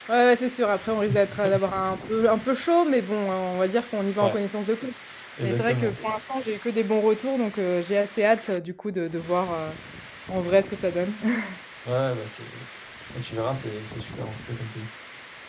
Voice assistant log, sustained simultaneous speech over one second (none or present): none